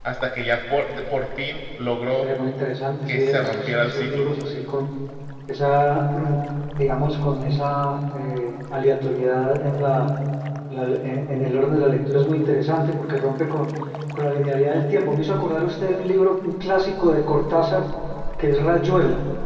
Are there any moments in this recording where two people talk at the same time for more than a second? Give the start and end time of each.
3.1-4.3

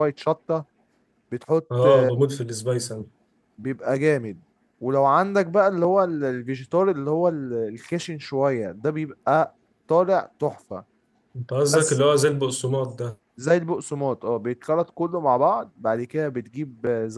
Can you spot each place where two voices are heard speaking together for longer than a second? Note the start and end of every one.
none

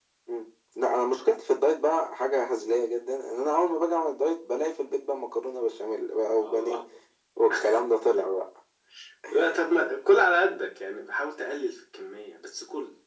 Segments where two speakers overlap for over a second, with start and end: none

